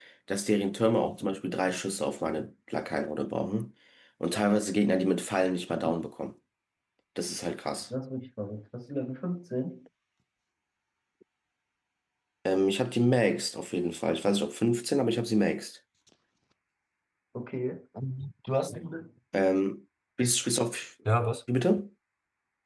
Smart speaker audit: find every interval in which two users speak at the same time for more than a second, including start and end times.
none

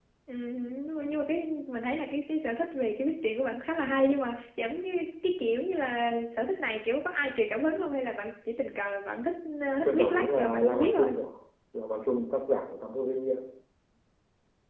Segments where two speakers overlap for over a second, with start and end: 9.8-11.1

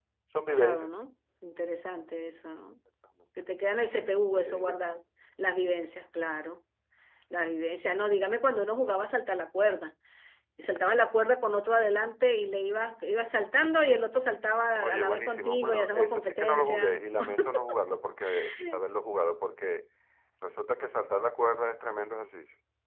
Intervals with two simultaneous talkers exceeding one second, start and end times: 14.8-17.0

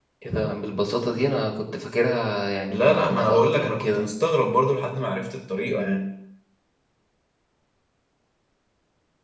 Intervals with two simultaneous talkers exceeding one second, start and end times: 2.7-4.1

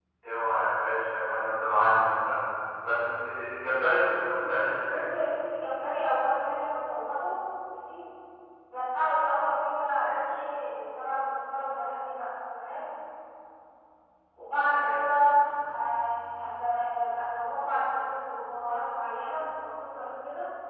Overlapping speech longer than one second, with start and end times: none

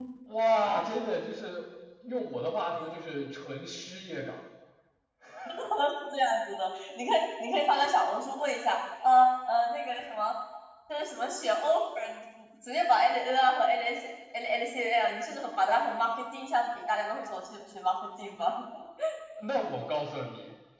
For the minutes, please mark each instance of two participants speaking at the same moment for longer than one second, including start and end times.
none

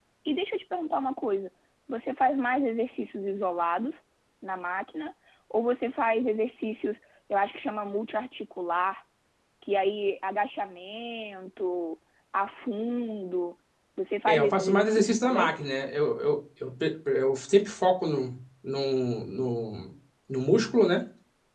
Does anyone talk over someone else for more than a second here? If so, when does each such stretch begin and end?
14.3-15.6

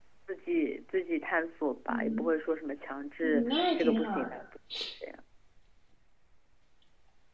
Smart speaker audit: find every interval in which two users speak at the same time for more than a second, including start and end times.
3.2-4.4

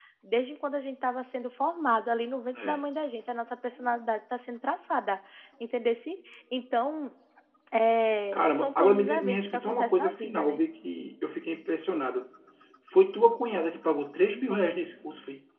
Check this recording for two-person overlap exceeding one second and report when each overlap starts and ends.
8.3-10.6

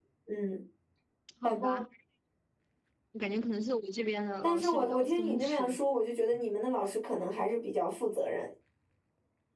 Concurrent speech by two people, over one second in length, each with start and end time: 4.4-5.8

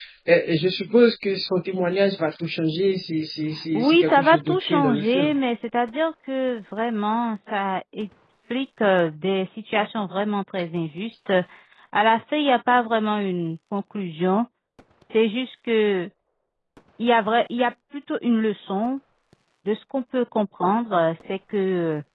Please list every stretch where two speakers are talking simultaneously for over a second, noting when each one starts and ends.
3.7-5.3

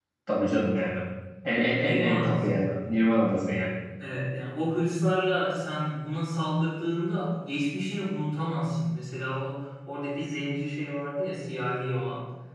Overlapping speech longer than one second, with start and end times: 1.6-3.0

